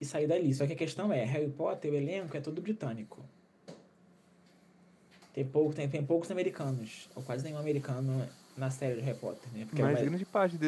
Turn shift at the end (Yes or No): Yes